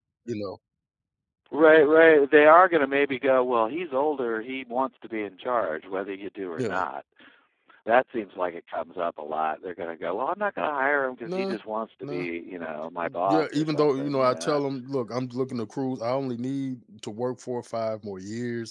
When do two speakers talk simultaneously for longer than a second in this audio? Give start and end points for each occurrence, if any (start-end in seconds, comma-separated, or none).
13.3-14.6